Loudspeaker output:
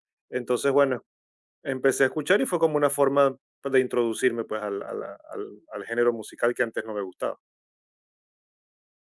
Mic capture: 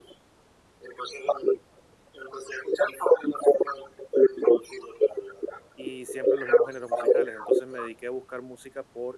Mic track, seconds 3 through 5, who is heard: echo only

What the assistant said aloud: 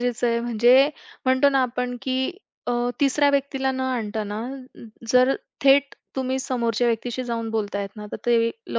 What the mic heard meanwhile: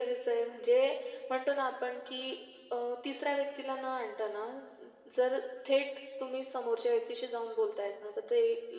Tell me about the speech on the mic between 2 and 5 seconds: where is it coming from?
echo only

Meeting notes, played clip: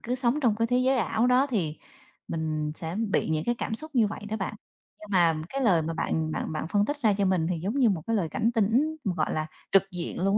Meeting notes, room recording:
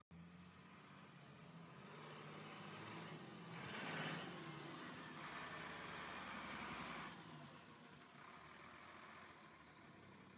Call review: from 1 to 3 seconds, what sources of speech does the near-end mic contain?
neither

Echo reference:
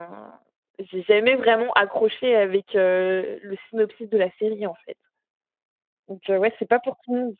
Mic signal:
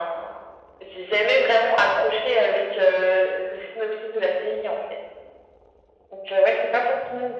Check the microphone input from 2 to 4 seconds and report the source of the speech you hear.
echo only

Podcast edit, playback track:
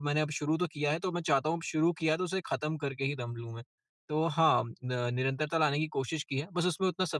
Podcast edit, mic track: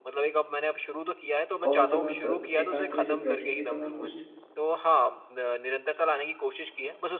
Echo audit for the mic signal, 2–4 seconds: both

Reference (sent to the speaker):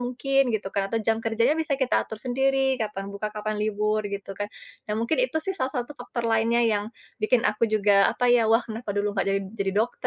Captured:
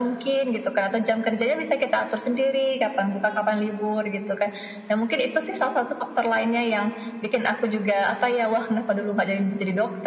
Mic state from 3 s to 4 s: echo only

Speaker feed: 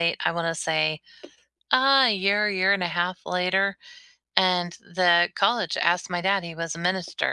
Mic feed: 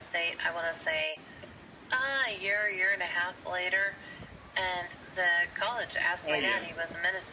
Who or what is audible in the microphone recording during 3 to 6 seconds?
echo only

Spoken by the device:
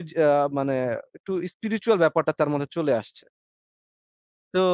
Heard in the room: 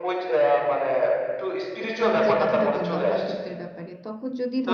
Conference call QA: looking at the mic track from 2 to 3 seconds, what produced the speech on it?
both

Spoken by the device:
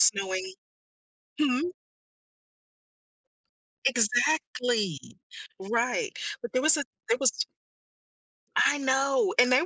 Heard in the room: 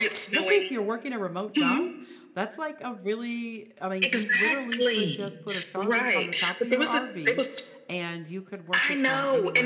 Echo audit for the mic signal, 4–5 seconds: both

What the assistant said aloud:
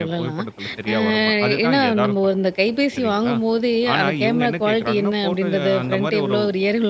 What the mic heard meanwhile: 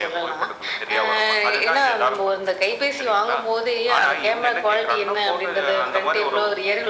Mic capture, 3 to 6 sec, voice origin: echo only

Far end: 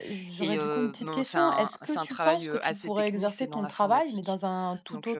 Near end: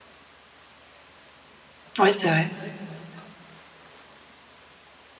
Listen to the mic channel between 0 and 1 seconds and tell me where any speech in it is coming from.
neither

